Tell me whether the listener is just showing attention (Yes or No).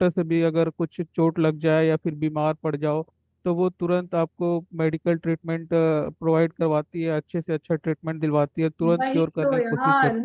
No